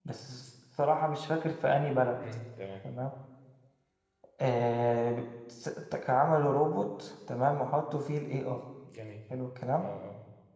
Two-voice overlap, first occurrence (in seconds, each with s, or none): none